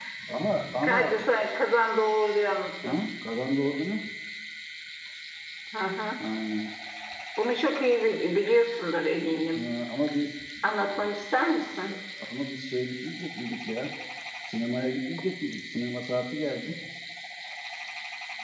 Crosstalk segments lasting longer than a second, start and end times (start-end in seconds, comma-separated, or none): none